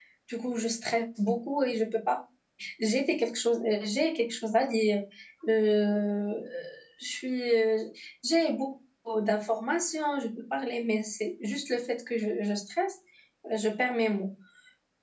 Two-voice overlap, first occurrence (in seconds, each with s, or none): none